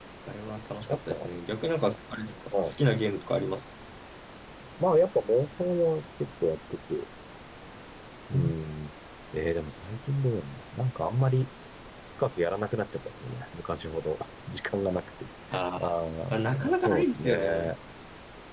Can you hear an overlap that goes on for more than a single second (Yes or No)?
Yes